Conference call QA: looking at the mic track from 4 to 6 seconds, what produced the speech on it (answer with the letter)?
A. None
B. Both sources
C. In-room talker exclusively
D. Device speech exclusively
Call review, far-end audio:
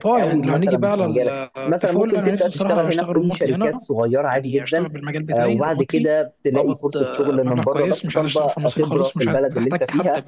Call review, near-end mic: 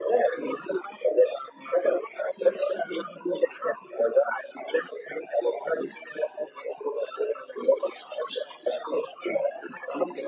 D